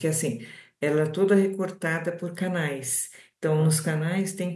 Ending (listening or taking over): listening